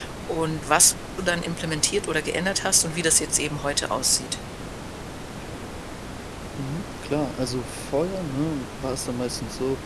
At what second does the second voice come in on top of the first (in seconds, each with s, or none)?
none